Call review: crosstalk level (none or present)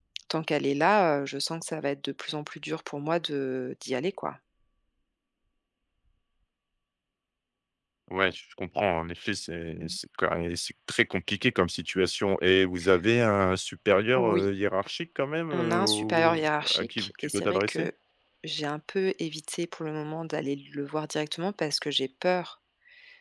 present